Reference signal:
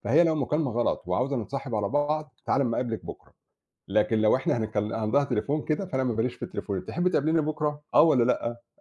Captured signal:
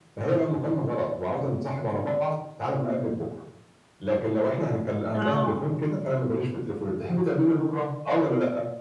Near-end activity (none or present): present